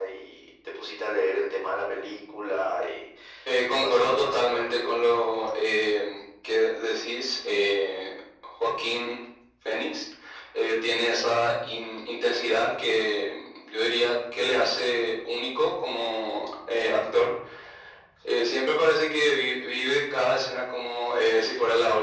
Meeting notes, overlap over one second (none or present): present